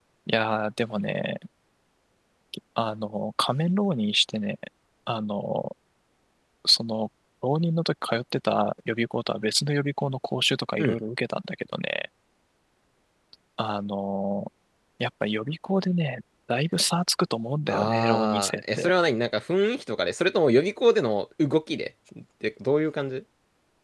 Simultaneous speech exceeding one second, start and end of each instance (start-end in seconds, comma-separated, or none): 17.7-18.9